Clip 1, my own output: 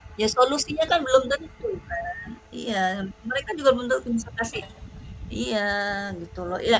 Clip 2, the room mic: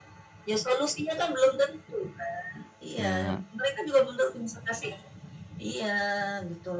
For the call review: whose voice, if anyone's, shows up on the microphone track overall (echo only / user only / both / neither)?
both